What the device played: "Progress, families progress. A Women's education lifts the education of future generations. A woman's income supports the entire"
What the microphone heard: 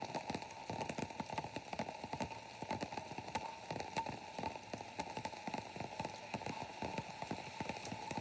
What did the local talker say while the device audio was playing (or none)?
none